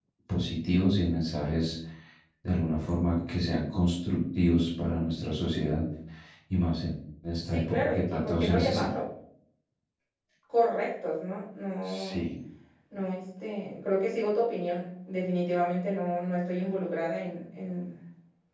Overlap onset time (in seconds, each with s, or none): 7.4 s